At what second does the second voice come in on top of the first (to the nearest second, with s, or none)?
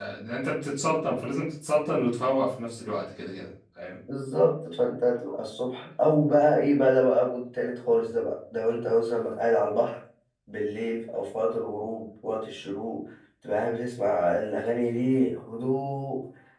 none